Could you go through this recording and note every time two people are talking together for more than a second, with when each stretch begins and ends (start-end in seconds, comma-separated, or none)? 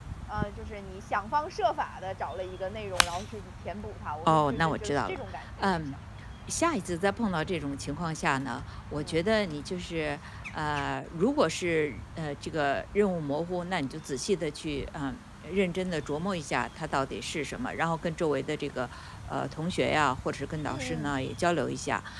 4.2-5.8